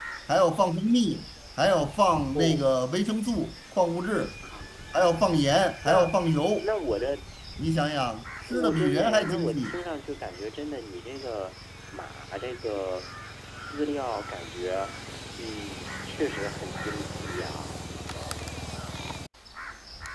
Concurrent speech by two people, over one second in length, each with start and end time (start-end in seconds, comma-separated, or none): 8.5-9.8